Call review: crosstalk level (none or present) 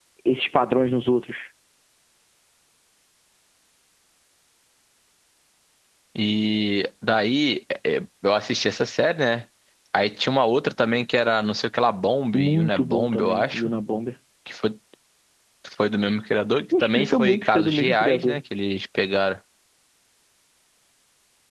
present